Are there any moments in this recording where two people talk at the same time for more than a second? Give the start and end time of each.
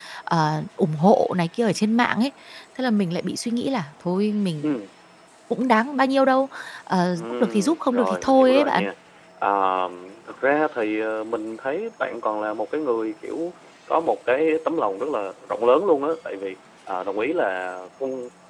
7.2-8.8

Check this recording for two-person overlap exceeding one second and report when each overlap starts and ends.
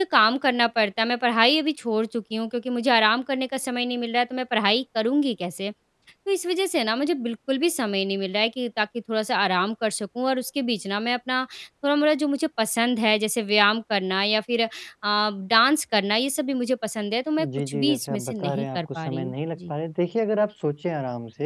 17.4-19.7

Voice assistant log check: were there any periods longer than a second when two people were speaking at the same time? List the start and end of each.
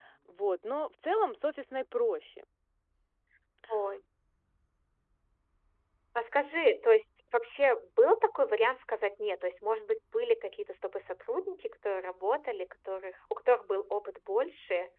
none

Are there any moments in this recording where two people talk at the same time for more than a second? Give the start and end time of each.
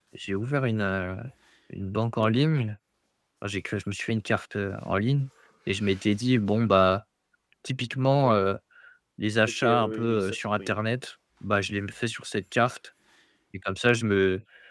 9.4-10.7

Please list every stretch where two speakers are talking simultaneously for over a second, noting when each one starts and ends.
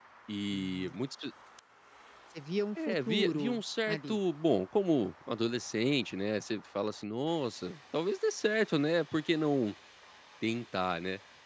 2.8-4.2

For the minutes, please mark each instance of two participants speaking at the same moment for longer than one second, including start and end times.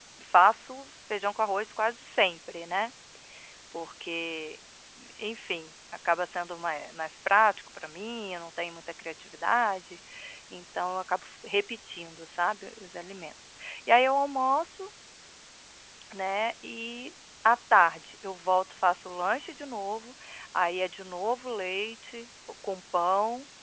none

